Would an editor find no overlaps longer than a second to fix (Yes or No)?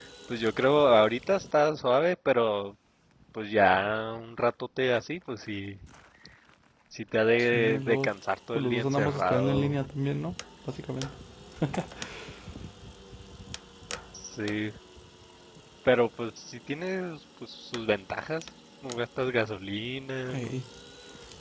No